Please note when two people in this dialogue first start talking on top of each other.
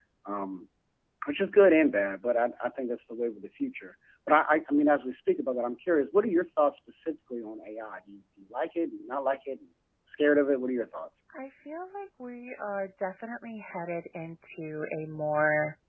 none

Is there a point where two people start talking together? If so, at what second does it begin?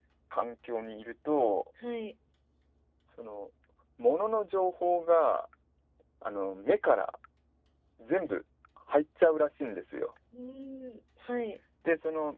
none

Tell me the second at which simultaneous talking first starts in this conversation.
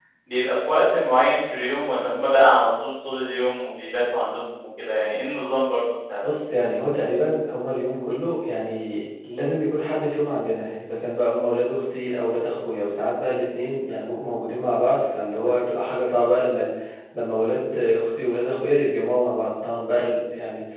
none

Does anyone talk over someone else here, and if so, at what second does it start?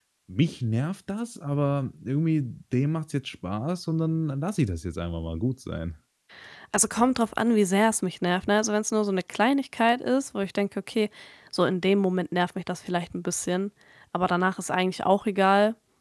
none

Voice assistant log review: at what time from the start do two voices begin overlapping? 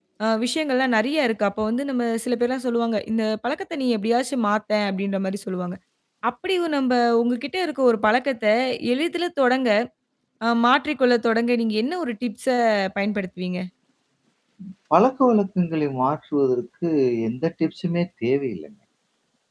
none

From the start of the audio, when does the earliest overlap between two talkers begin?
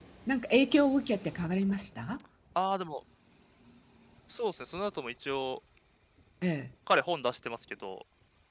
none

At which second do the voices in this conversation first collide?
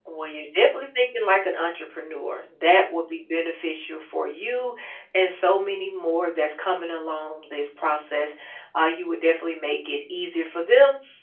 none

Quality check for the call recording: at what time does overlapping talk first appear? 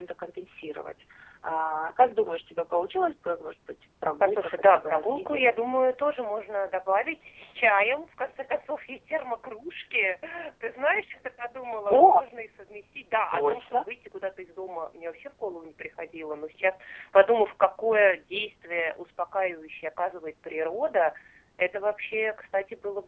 4 s

